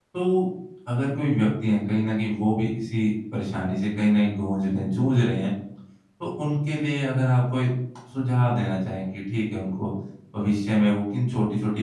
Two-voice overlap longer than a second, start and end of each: none

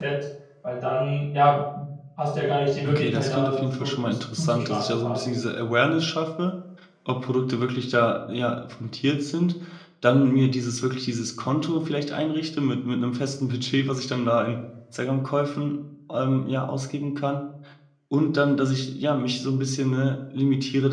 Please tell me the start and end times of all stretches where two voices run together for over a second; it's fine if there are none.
2.8-5.3

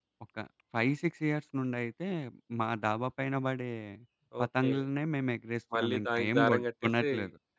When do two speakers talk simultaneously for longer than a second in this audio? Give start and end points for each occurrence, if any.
5.8-7.0

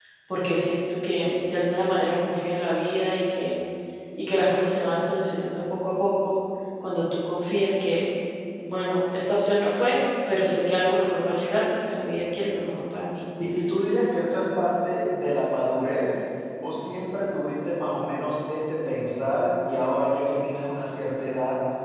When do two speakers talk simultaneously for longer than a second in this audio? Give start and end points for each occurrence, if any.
none

